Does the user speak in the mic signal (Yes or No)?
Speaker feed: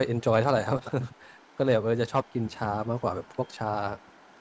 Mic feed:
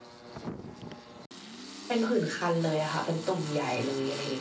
Yes